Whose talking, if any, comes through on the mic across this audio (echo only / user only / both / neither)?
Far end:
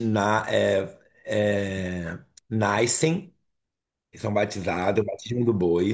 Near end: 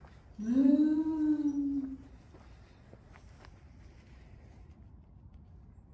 user only